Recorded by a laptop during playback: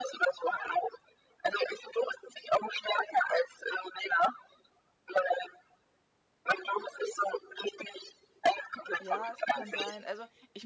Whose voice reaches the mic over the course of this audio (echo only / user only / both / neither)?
both